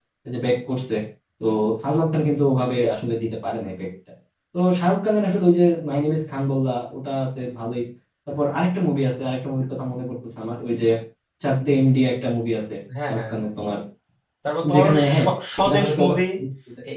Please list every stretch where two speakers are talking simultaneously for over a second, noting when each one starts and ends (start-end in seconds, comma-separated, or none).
14.7-16.2